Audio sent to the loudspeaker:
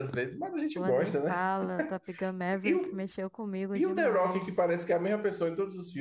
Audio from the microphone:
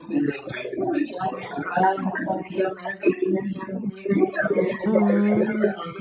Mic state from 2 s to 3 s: echo only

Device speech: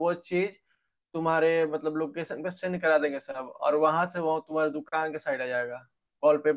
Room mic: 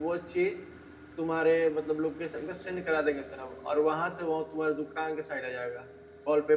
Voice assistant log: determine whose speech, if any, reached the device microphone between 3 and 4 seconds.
echo only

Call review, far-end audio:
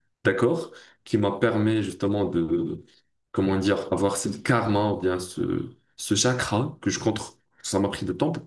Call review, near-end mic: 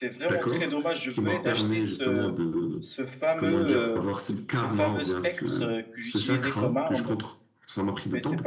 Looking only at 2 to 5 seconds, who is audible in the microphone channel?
both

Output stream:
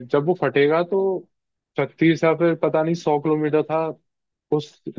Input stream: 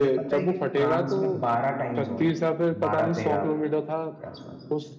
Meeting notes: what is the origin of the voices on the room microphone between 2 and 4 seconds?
both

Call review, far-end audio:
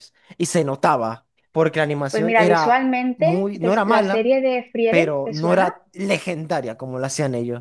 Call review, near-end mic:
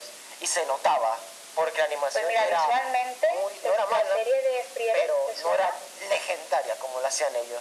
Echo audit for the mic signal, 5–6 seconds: echo only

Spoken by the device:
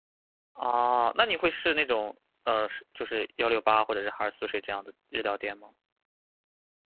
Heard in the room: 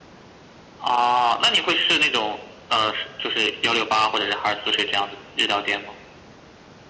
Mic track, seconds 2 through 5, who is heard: echo only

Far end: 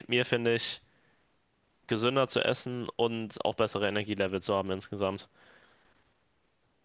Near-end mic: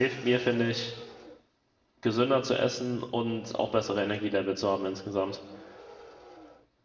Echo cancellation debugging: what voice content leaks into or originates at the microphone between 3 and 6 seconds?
echo only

